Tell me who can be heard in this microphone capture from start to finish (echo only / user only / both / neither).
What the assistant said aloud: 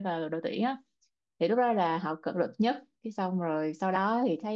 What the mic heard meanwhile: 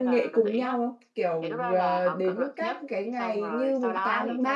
both